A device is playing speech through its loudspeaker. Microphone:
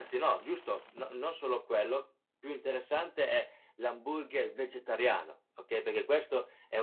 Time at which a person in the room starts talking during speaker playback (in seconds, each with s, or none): none